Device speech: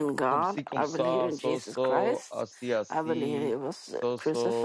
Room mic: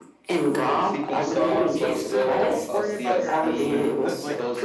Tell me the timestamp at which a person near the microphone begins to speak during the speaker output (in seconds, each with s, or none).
1.5 s